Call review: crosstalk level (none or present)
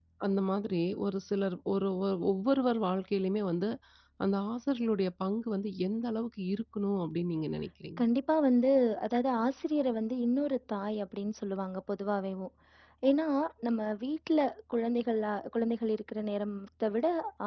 none